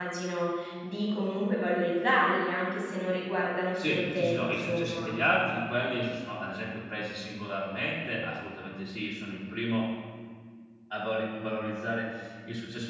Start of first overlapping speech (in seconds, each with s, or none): 3.8 s